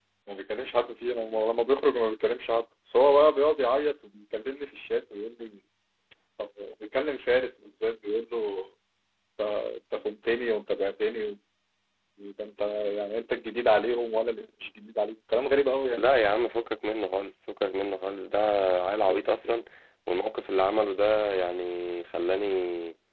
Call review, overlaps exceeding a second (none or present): none